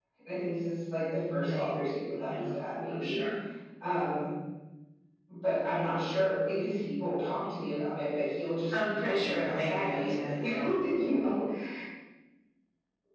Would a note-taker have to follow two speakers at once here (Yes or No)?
Yes